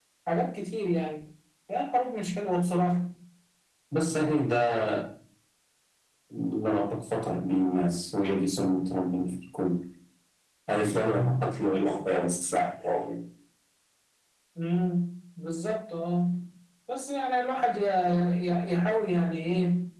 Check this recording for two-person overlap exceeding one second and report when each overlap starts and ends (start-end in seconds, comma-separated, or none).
none